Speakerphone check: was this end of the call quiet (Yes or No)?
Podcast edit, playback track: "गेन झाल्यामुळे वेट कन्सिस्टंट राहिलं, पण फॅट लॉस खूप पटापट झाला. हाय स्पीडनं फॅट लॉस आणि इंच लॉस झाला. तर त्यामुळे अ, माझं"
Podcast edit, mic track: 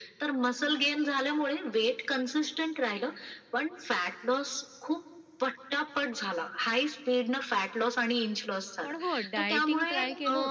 No